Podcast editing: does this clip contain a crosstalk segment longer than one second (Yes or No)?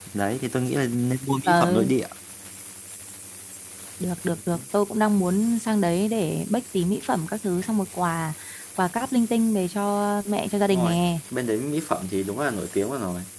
No